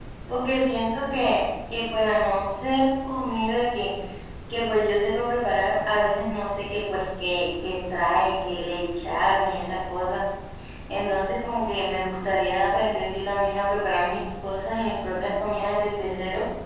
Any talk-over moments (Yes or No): No